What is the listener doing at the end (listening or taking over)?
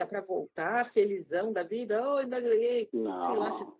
listening